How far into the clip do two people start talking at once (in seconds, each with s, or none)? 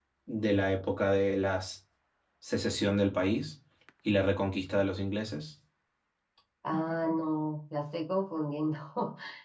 none